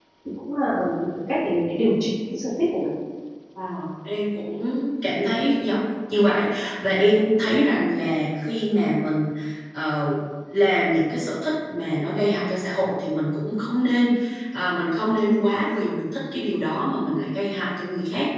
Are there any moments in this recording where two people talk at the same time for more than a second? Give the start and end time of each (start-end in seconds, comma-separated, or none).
none